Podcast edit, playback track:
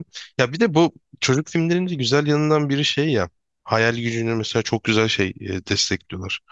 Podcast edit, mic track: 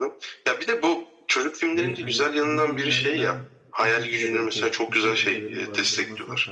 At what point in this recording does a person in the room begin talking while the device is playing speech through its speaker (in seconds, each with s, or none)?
1.7 s